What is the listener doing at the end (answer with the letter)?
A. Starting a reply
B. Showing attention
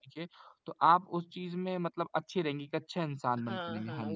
A